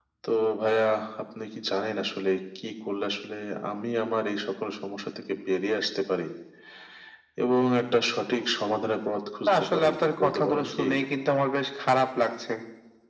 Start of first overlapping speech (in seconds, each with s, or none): 9.5 s